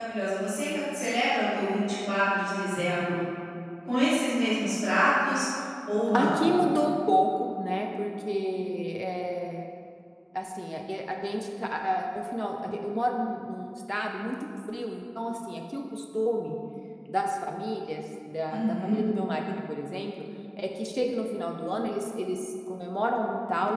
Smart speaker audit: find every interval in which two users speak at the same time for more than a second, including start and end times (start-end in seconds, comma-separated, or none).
none